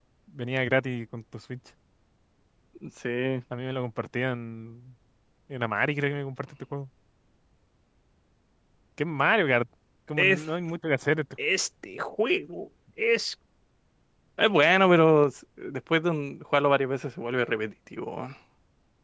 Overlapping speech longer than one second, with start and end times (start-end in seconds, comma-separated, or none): none